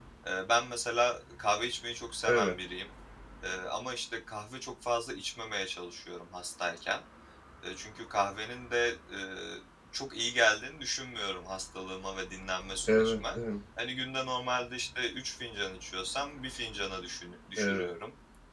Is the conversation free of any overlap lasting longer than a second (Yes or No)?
Yes